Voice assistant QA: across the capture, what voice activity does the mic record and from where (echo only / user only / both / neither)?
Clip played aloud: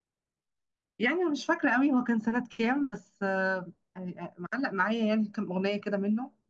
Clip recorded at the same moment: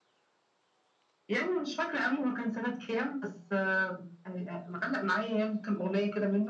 echo only